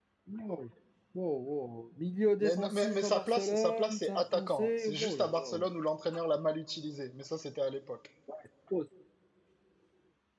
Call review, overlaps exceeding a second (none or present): present